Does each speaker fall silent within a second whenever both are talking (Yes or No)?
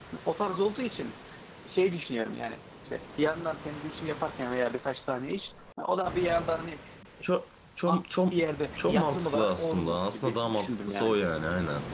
No